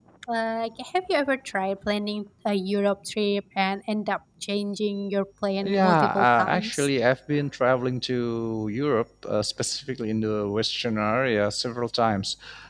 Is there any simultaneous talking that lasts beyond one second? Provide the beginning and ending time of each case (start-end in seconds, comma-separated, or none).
5.6-6.9